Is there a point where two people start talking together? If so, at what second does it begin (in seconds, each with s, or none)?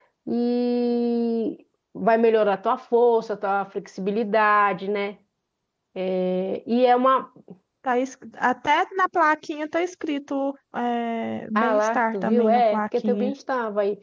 11.6 s